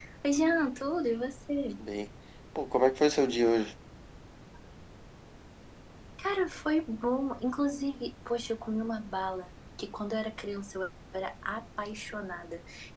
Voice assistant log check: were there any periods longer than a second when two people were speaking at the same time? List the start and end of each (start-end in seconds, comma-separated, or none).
none